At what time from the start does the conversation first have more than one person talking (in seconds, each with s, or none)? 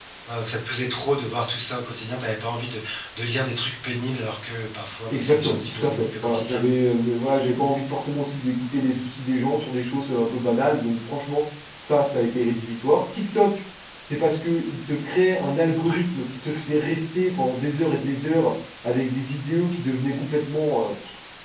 5.1 s